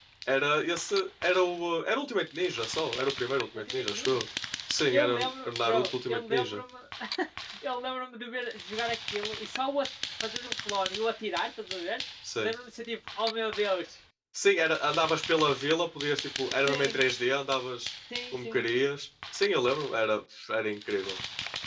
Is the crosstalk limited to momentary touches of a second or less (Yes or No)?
No